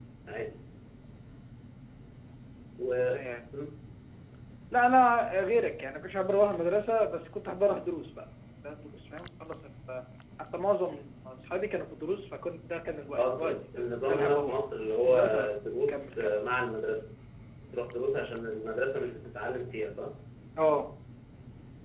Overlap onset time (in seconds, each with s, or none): 13.1 s